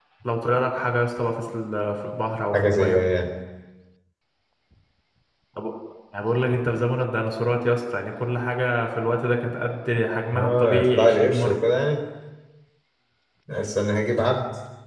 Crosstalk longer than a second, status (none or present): present